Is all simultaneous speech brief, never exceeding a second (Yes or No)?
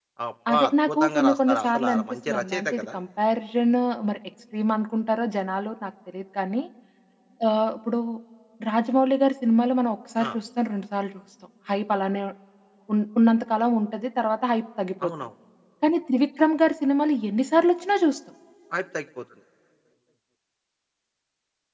No